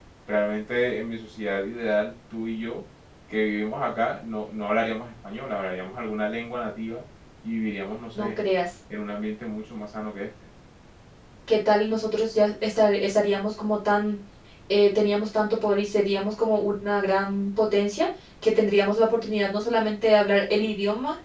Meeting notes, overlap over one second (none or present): none